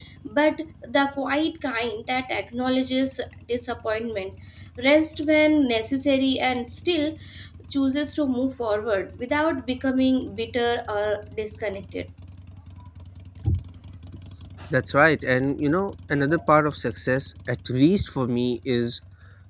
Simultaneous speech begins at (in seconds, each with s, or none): none